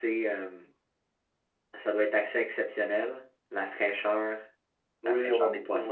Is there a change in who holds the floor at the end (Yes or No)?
Yes